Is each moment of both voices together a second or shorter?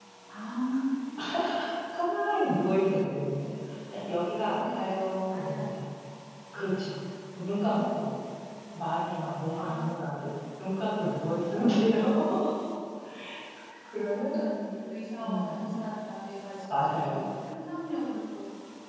No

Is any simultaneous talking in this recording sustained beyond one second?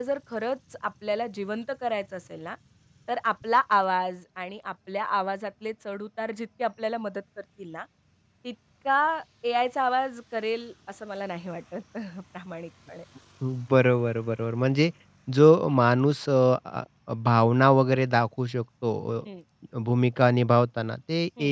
No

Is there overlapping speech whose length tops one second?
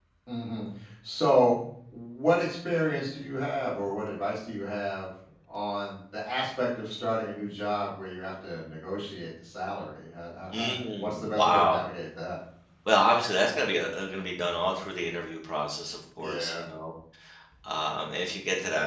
Yes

